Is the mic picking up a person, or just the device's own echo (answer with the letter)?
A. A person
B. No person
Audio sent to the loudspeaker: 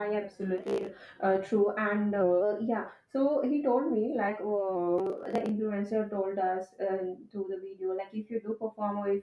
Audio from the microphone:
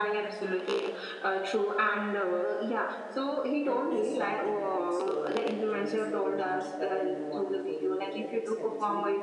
A